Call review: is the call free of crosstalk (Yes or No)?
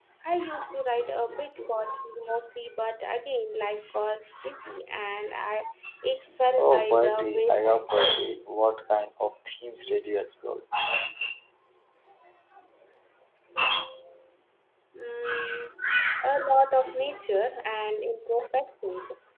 No